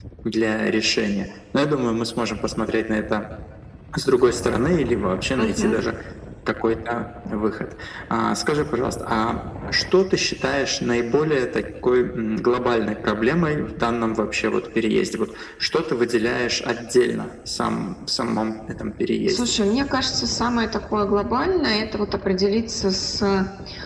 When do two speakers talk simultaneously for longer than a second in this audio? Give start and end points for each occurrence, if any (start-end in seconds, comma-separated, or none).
none